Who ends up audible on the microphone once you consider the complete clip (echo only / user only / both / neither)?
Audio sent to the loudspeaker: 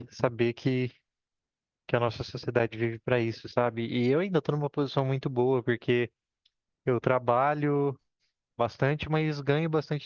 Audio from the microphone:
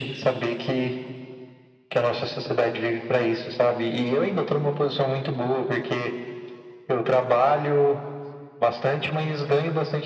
echo only